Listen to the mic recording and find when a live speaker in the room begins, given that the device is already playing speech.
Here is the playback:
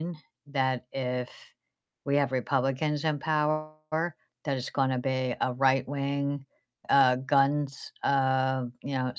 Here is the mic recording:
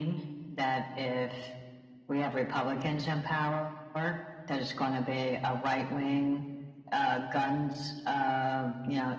none

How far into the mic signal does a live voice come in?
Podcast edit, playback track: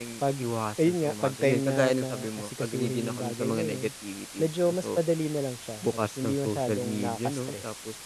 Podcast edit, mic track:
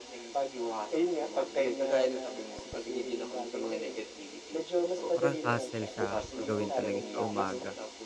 5.1 s

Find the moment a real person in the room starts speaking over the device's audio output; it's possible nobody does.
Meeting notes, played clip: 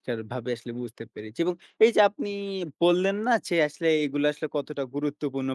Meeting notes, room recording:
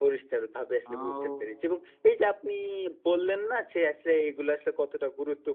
0.9 s

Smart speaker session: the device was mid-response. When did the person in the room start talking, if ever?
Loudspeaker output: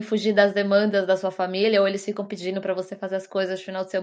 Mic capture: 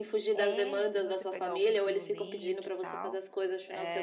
0.3 s

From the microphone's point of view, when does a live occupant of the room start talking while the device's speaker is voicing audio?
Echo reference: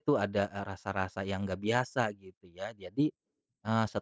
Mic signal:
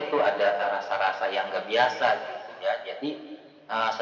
none

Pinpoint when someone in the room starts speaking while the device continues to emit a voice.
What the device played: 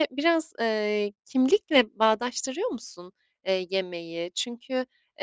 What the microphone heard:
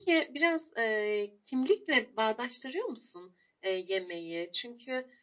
none

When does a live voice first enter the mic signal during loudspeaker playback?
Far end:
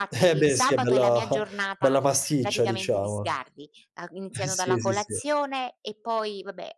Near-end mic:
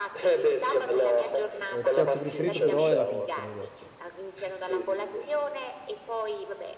1.7 s

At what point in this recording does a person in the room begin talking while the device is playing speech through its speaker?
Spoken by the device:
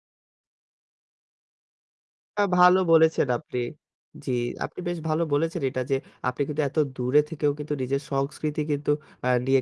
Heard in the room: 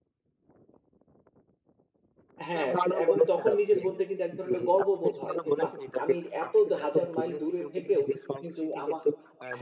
2.5 s

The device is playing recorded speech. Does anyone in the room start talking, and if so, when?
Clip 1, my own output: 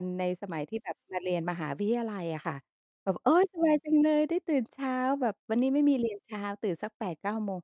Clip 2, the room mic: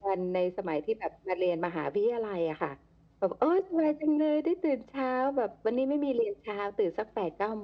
none

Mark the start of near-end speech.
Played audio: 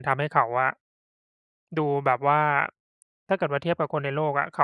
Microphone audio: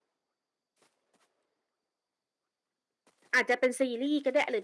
3.3 s

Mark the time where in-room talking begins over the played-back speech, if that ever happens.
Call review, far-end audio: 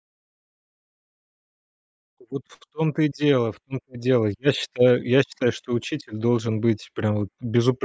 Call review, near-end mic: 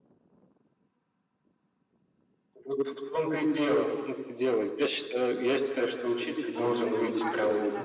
6.5 s

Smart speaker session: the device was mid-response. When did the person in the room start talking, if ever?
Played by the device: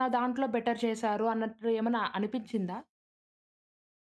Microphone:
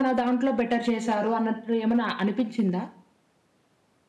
none

